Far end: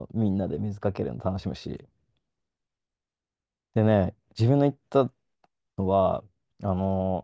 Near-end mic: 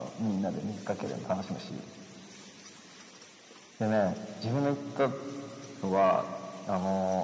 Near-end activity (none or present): none